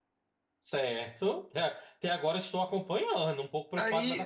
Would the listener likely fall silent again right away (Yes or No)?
No